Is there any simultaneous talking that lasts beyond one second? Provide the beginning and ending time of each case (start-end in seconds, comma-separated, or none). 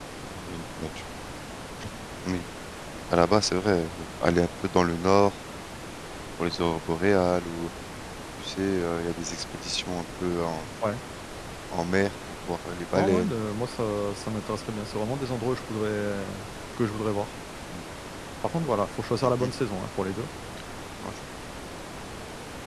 none